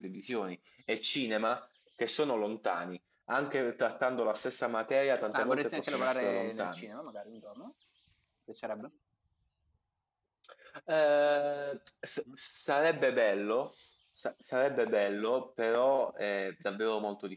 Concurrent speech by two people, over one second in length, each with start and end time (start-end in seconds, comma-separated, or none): 5.3-6.9